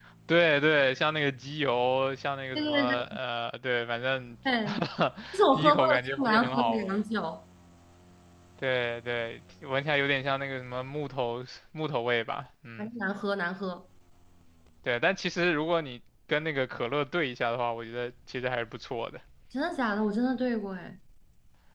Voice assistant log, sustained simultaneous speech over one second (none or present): present